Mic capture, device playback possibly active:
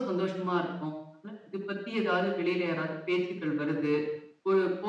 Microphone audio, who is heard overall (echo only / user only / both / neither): echo only